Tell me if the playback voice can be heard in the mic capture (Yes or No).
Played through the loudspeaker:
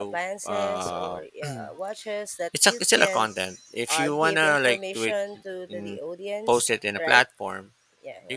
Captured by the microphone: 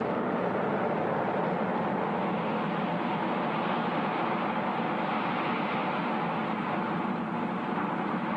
No